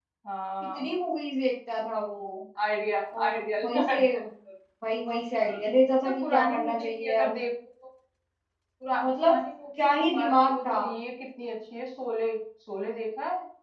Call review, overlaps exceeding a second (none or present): present